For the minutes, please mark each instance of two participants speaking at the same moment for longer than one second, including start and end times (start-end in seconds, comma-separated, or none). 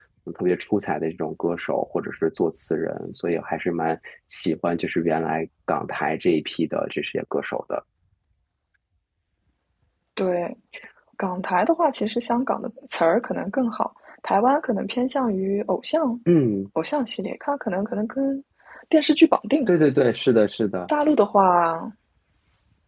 none